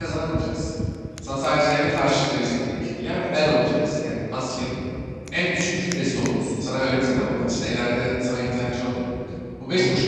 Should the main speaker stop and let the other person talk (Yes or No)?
No